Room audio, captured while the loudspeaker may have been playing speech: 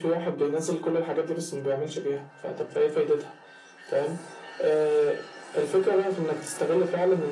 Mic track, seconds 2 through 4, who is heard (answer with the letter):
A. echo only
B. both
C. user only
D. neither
A